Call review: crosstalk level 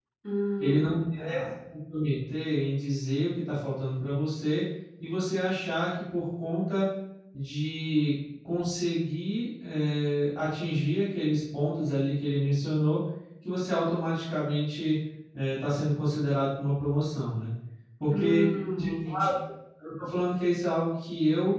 present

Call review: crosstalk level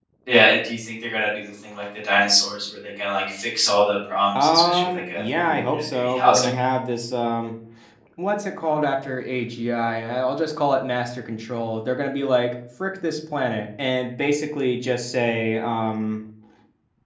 present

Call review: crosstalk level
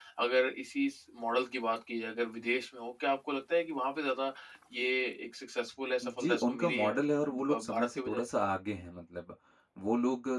present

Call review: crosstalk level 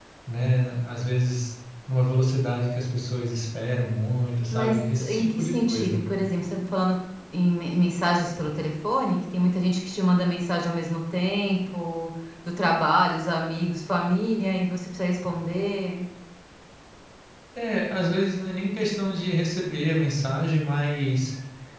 present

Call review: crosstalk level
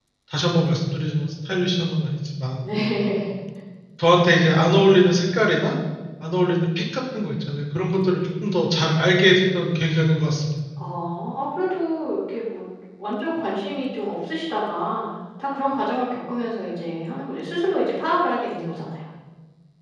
none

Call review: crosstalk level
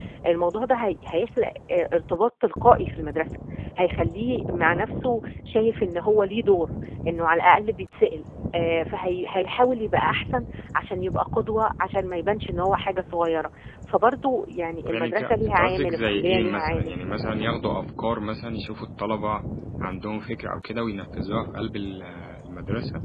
present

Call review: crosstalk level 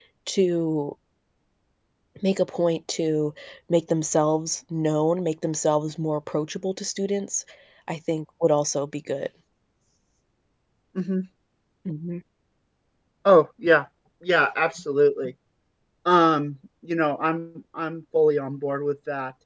none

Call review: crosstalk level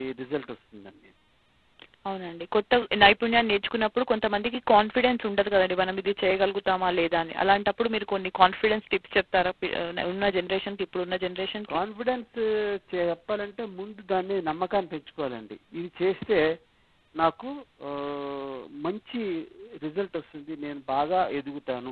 none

